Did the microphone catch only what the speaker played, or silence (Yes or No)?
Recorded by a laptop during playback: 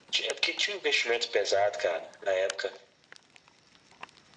Yes